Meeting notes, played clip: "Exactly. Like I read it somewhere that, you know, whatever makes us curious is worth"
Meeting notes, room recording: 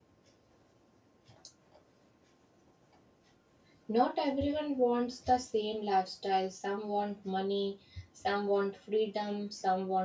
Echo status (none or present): none